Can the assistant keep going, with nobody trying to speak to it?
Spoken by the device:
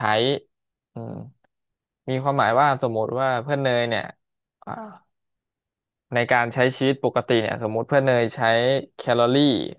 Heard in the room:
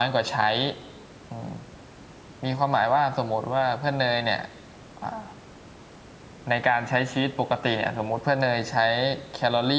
Yes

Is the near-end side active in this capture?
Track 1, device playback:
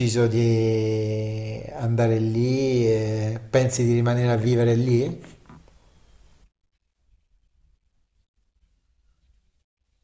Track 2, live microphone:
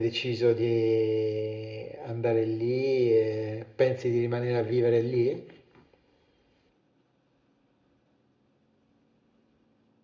No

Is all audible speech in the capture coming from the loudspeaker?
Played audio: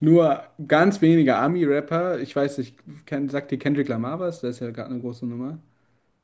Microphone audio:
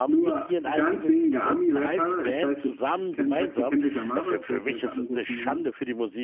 No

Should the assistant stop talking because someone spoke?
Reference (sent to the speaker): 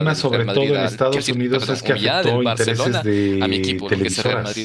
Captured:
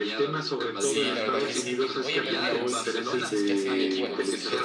Yes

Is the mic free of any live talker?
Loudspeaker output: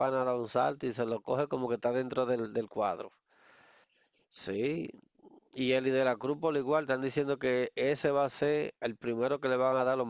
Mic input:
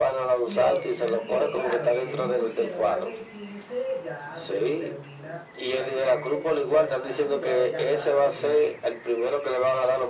No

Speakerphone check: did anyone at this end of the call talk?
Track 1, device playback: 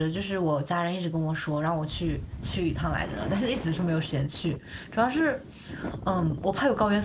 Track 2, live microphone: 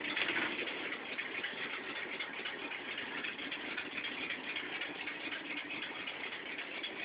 No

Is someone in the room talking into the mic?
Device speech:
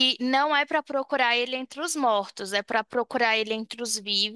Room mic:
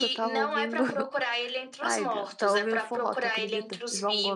Yes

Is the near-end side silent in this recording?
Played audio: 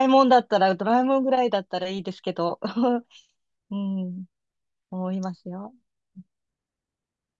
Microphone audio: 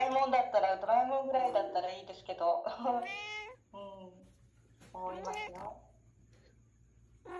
Yes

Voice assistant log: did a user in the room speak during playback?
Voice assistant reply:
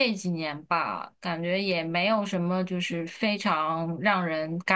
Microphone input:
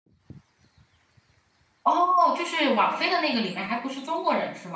Yes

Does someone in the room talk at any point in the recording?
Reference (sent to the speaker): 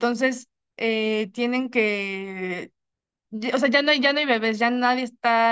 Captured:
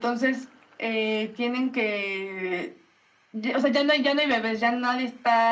No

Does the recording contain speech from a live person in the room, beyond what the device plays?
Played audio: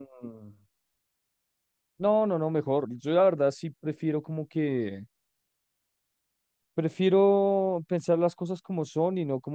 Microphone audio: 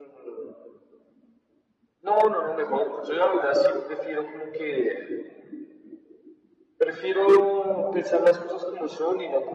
No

